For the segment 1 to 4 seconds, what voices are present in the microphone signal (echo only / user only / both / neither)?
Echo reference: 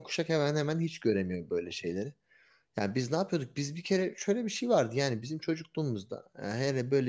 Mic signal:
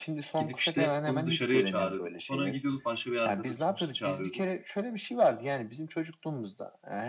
both